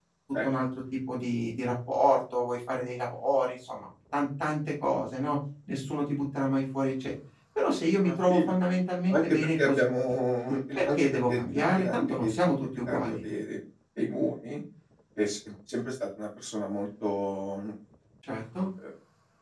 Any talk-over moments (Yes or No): Yes